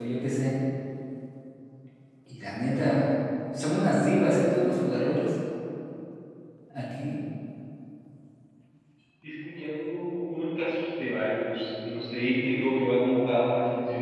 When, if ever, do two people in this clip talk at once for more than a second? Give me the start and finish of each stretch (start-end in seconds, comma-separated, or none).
none